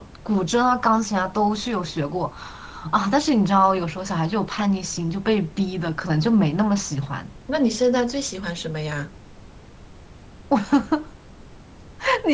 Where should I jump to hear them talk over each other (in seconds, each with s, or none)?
none